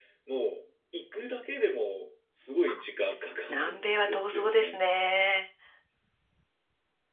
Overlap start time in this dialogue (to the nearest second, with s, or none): 3 s